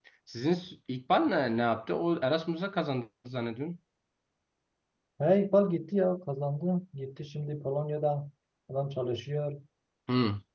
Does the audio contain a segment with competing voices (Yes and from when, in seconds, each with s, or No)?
No